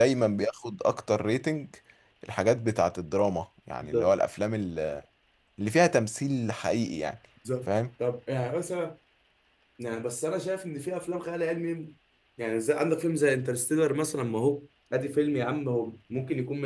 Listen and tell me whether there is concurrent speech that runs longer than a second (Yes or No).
No